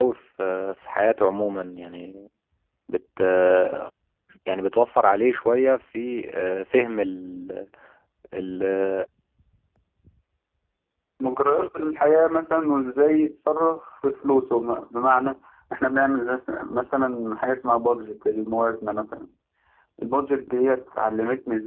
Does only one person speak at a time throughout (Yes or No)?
Yes